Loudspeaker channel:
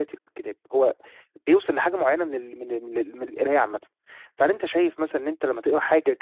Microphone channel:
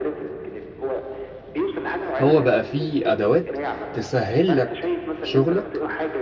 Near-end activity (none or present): present